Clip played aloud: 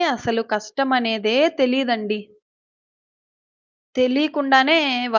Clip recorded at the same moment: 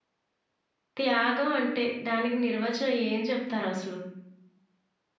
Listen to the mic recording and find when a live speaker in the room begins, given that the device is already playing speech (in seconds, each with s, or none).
1.0 s